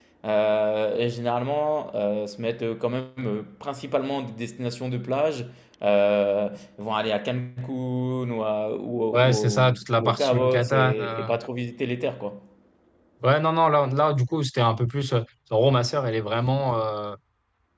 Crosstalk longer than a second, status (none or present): present